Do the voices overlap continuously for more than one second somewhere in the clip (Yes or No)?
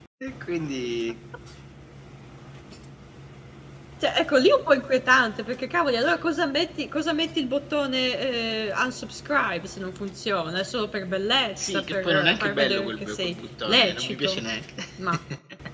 Yes